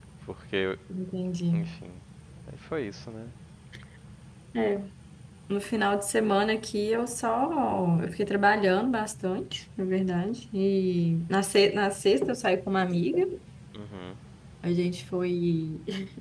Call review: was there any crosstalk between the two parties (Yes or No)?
No